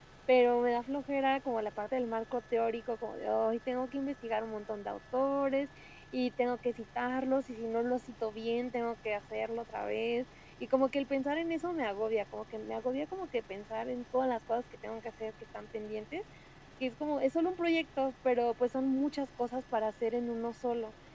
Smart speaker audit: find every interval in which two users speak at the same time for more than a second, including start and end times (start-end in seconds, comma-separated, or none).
none